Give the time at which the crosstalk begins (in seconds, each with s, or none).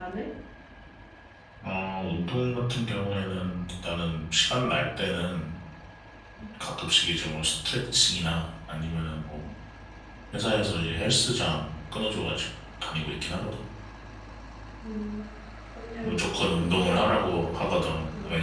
16.0 s